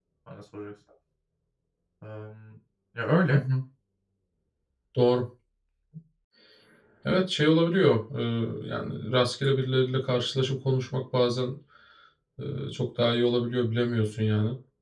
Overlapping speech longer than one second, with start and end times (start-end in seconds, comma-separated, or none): none